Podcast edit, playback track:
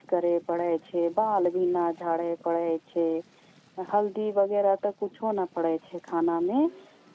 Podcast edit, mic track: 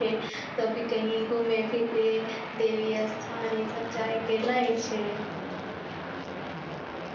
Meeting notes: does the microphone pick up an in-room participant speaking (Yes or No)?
Yes